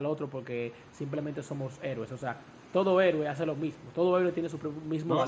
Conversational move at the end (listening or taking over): taking over